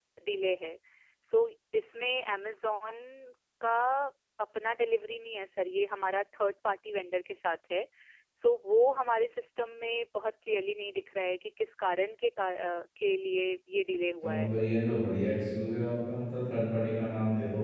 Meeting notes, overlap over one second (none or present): none